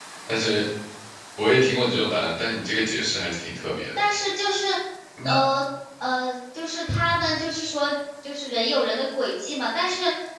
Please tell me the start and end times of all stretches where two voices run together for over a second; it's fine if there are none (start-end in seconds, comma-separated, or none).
none